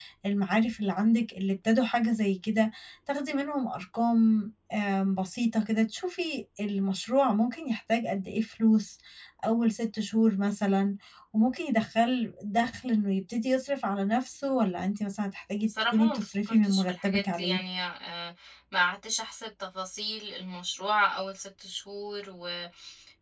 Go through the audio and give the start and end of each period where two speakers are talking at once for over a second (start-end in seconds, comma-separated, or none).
15.6-17.6